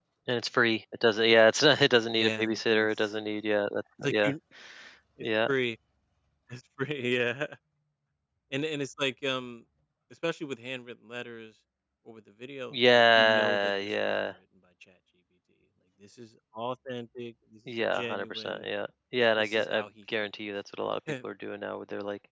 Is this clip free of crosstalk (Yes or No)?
No